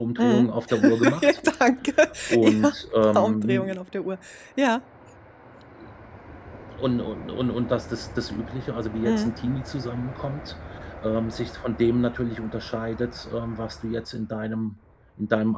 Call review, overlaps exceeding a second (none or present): present